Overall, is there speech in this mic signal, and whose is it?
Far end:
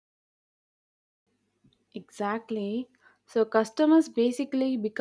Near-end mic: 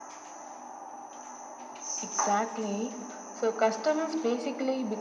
echo only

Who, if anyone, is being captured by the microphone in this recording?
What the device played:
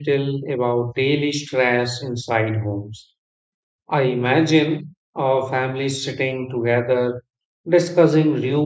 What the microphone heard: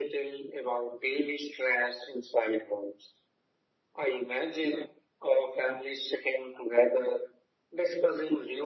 echo only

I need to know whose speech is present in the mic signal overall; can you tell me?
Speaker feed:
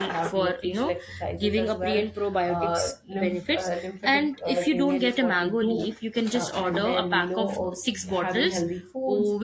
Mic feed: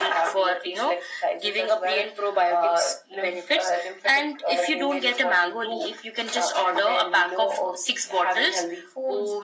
echo only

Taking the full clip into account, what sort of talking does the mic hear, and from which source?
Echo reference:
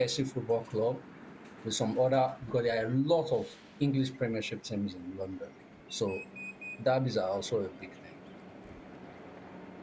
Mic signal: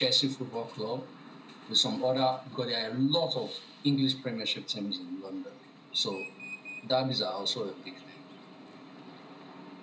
echo only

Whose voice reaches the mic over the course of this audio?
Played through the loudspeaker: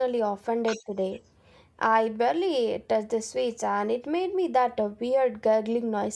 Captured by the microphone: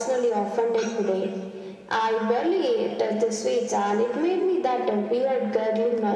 echo only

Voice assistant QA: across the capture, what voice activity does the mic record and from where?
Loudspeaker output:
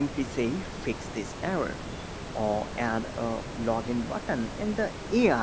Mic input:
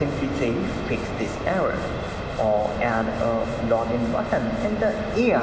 echo only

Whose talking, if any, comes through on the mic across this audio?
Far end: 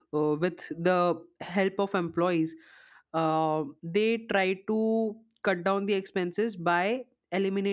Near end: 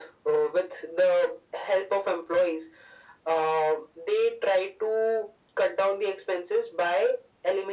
echo only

